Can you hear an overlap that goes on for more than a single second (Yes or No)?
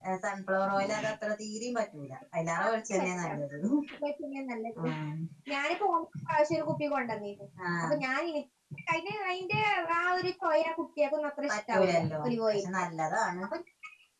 Yes